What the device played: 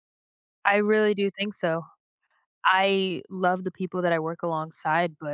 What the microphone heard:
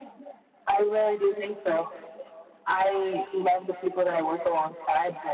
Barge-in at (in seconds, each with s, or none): none